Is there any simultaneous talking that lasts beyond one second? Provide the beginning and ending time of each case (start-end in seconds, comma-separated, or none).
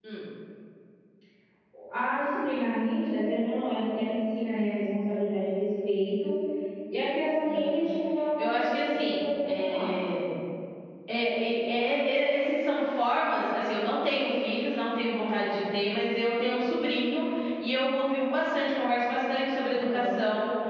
8.4-10.0